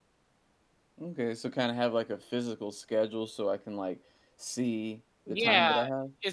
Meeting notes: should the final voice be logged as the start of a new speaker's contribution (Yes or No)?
Yes